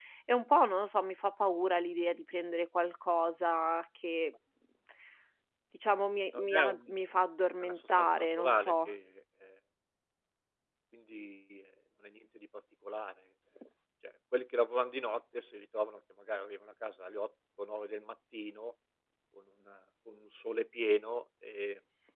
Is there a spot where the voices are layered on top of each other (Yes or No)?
Yes